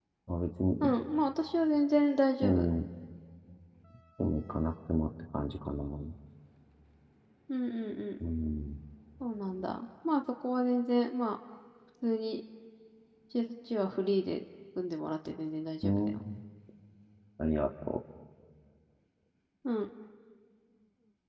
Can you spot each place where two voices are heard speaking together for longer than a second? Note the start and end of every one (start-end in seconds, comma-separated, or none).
none